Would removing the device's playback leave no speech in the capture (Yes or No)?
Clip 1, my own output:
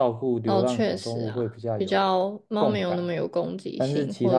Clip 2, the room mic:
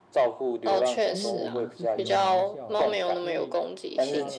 No